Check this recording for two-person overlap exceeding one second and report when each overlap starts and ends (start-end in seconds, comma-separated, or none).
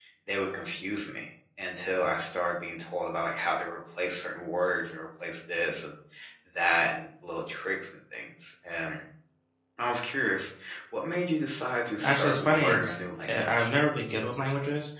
12.0-13.7